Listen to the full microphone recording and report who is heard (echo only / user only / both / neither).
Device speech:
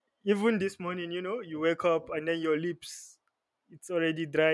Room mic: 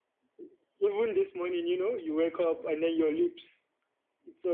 echo only